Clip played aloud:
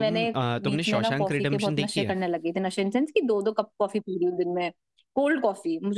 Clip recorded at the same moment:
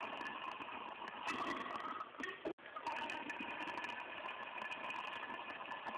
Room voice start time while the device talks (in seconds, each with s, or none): none